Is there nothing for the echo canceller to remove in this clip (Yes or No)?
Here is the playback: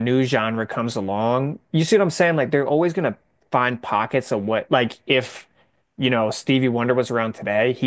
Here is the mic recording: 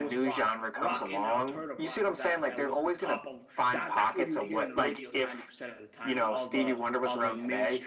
No